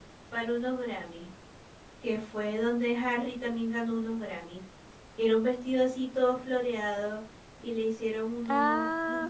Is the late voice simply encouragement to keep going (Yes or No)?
Yes